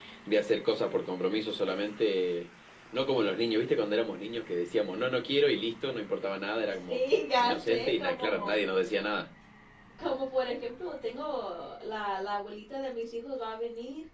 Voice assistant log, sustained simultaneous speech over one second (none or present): present